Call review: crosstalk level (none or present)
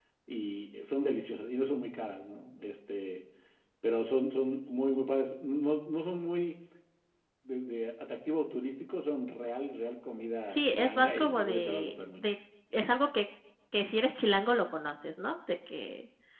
present